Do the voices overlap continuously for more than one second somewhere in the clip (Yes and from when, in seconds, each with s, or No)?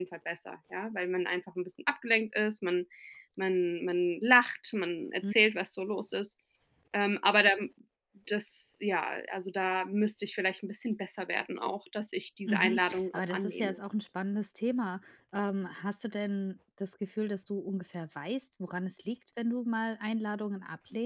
Yes, from 12.5 s